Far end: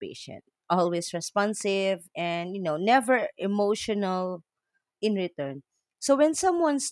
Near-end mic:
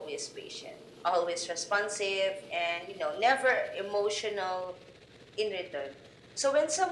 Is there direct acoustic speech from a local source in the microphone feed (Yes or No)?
No